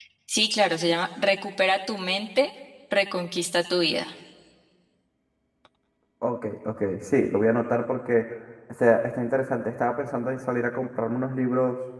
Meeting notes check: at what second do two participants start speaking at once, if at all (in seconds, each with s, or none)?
none